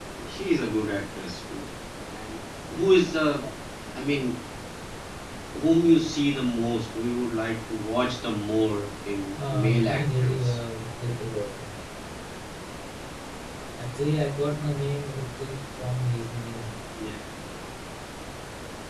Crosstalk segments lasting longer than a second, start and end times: 9.4-10.6

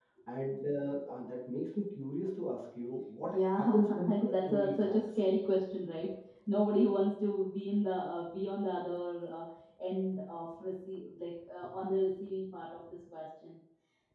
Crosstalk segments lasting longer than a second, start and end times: 3.3-5.2

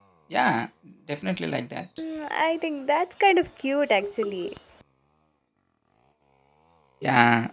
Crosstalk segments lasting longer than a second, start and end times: none

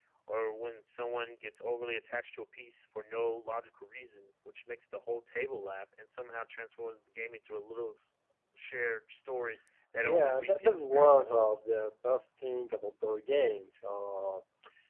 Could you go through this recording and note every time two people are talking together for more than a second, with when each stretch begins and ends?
10.0-11.6

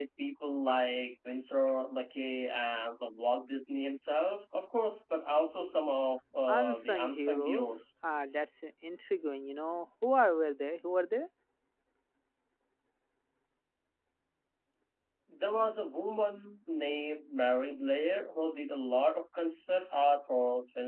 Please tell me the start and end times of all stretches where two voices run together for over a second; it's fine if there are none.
6.5-7.8

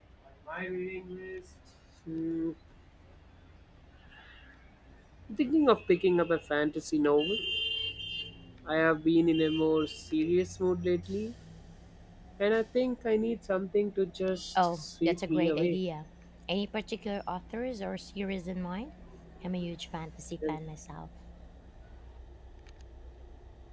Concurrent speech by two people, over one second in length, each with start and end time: 14.6-15.8

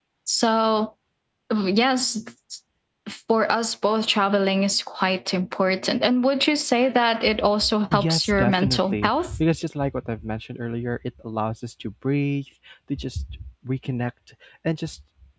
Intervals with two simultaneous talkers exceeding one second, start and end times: 7.9-9.4

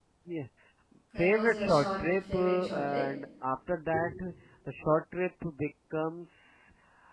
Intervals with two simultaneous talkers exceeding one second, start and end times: 1.2-3.0

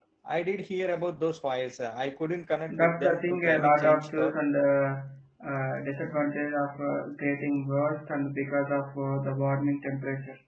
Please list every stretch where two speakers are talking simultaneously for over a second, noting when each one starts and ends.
2.7-4.4

